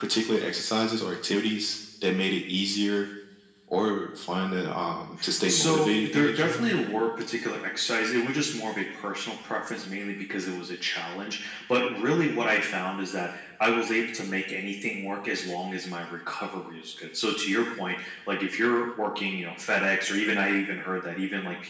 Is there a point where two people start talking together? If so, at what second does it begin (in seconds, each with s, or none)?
5.5 s